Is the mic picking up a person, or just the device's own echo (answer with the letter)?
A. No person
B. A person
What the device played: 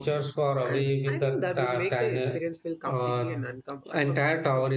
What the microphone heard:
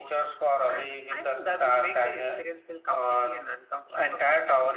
A